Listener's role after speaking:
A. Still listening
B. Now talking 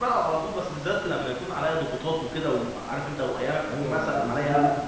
B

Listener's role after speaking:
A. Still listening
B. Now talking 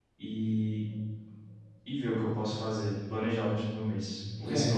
B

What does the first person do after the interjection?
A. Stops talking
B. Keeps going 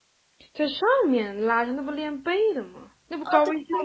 A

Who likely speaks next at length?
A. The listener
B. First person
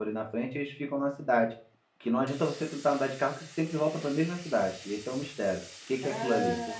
A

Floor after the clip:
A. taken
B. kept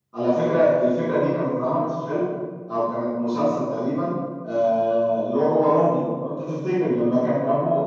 B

